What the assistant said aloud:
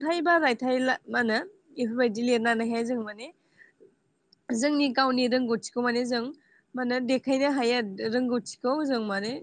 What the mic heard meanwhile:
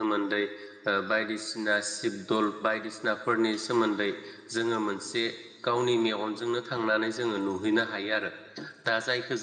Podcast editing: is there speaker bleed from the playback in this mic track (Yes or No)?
No